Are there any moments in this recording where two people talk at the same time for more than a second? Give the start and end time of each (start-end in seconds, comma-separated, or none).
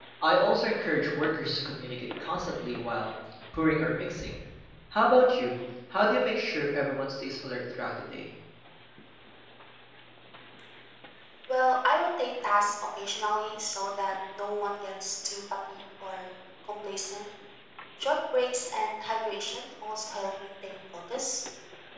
none